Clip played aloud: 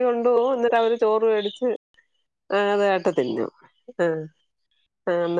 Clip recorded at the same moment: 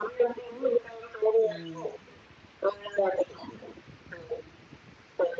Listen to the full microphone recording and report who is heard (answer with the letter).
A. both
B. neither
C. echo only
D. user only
A